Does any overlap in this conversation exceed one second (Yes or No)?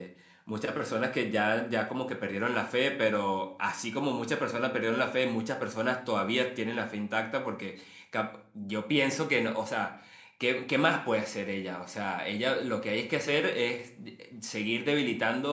No